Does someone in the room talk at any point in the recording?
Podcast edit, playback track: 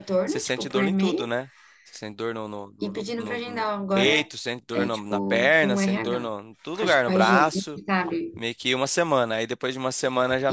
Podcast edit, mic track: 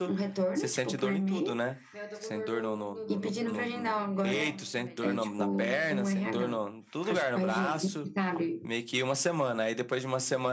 Yes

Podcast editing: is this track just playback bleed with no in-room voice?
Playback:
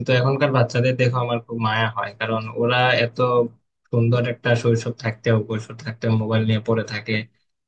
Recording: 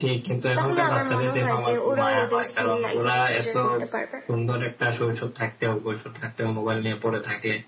No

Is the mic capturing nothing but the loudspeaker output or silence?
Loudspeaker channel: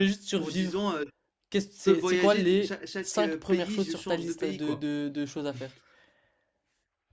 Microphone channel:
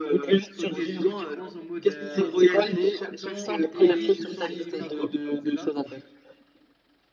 No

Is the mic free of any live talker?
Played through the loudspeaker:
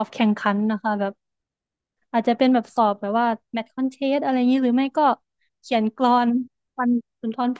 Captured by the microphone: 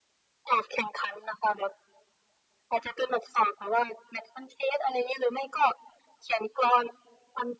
Yes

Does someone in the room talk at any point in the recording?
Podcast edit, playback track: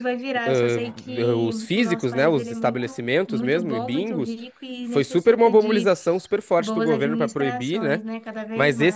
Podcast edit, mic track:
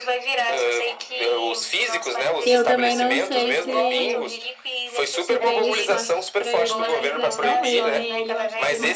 Yes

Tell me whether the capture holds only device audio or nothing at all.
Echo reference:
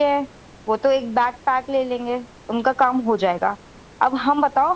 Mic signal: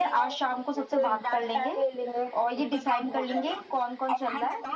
No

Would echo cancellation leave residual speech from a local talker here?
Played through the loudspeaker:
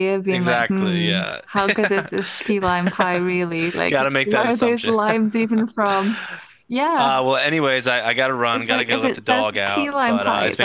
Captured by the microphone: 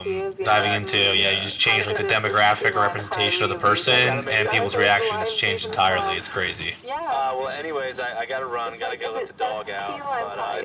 Yes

